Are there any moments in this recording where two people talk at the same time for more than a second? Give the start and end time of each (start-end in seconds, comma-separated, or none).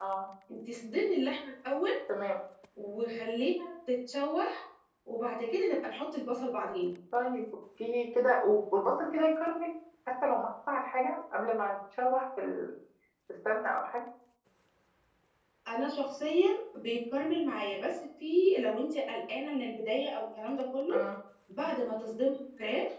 none